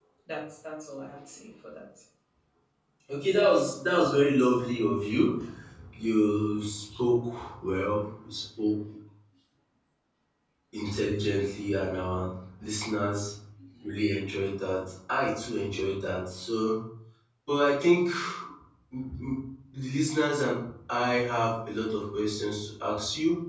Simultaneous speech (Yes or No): No